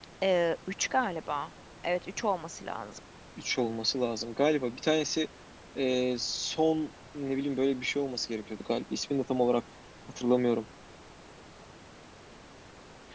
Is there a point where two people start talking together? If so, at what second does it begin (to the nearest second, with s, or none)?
none